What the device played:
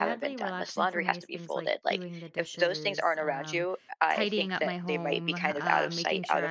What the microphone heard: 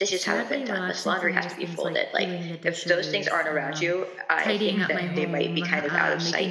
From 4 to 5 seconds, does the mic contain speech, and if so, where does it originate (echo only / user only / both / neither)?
both